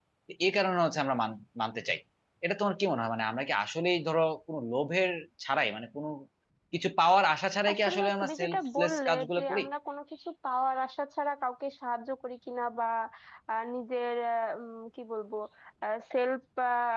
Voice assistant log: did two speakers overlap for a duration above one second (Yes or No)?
Yes